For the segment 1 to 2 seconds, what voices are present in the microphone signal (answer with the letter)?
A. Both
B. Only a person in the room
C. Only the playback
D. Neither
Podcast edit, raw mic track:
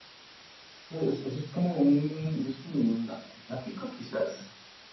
C